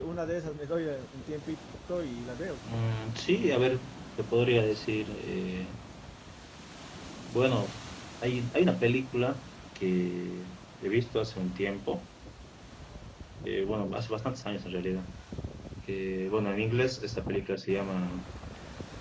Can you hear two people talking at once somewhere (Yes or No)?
No